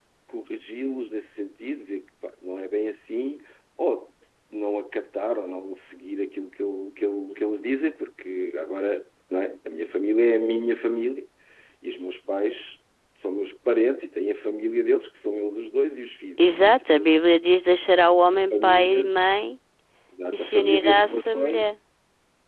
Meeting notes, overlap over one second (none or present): present